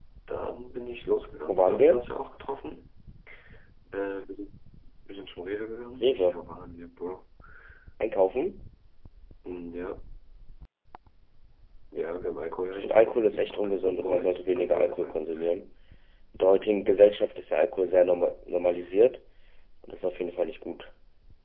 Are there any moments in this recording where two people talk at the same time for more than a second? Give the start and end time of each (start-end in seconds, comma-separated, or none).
12.7-15.2